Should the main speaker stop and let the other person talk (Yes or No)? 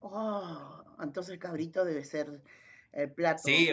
Yes